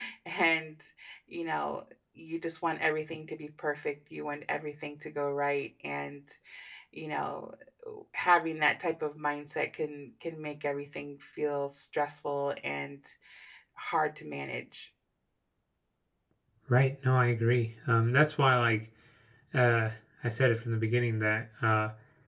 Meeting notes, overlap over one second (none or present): none